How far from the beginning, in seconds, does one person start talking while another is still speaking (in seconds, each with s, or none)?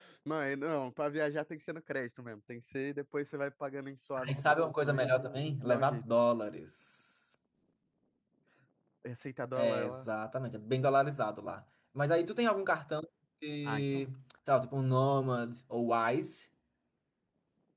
4.3 s